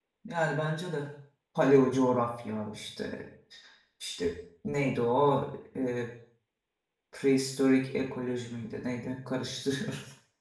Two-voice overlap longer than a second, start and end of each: none

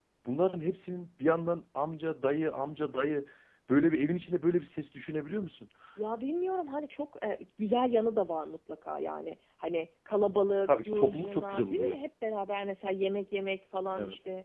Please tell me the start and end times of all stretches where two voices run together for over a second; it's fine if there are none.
10.7-12.0

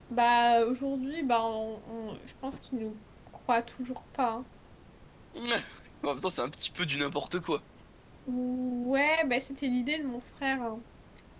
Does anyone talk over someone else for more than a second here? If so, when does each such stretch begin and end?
none

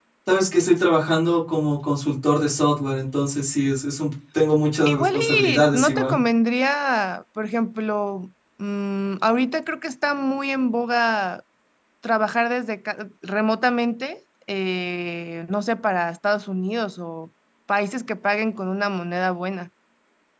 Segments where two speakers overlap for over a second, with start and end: 4.8-6.2

